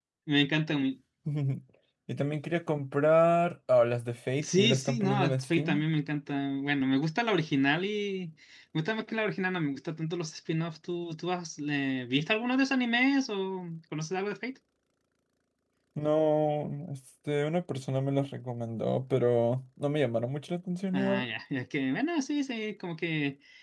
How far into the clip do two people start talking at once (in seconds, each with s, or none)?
4.4 s